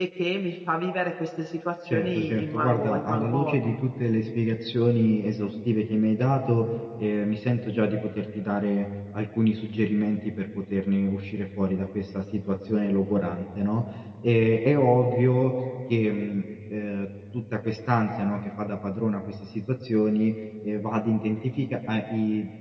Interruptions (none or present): present